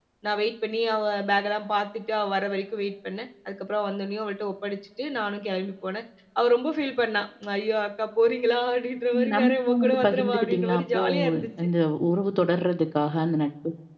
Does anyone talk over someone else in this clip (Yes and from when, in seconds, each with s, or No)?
Yes, from 9.1 s